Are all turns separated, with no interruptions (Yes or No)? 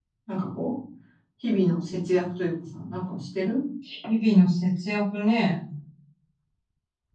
Yes